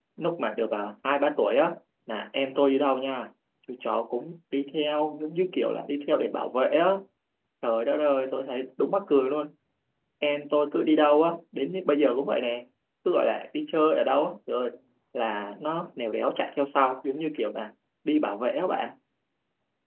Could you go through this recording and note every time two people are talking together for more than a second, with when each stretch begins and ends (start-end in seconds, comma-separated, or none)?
none